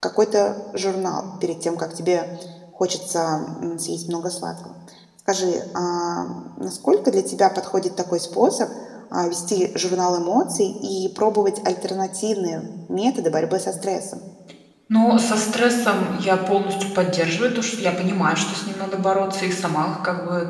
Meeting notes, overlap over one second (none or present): none